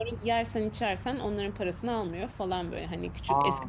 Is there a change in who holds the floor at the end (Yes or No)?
No